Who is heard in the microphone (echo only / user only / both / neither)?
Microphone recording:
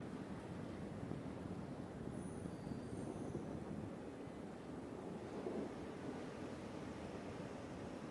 neither